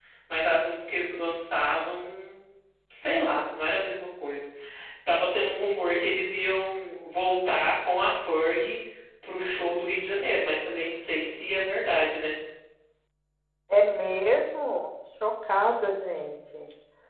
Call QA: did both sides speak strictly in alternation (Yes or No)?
Yes